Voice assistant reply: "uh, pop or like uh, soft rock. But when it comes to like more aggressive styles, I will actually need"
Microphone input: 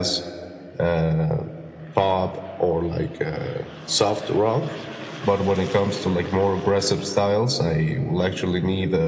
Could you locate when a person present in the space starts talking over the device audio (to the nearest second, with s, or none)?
none